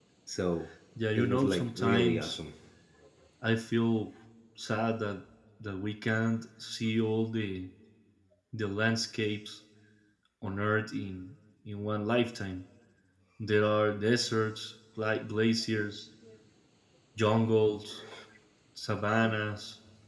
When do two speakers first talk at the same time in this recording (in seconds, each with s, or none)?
1.1 s